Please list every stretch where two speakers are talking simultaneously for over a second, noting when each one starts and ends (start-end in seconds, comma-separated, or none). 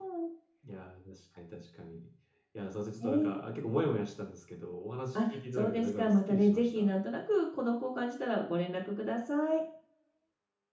5.2-6.9